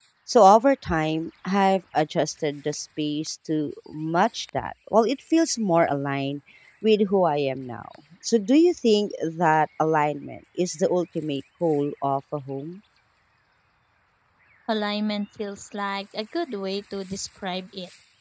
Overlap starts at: none

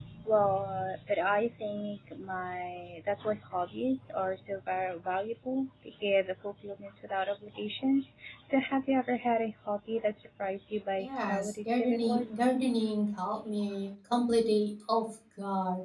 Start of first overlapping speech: 11.0 s

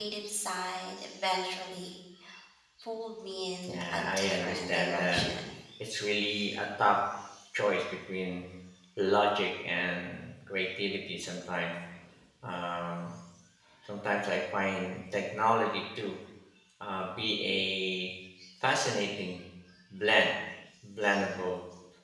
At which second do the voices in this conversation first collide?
3.7 s

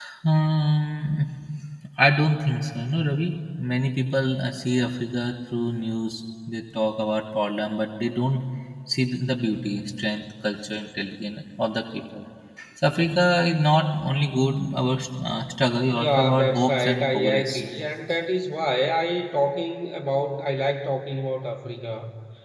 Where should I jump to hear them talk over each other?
15.9 s

